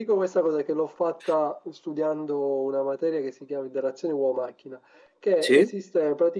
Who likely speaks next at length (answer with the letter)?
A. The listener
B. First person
B